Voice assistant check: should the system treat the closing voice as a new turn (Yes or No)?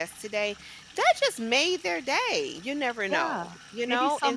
Yes